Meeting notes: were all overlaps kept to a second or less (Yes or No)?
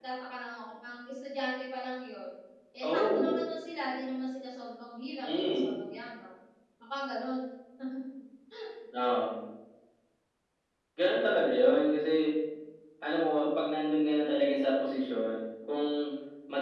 Yes